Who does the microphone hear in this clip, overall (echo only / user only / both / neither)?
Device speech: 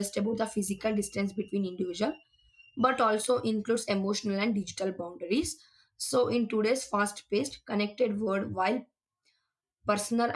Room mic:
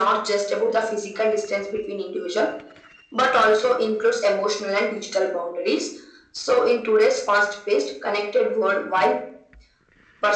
echo only